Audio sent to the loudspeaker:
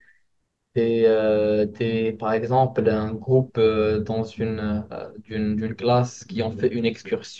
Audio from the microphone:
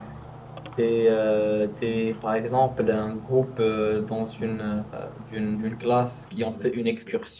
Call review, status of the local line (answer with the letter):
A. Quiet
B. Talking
A